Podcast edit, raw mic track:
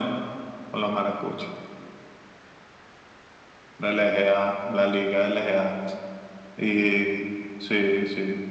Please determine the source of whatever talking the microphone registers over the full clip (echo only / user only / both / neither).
echo only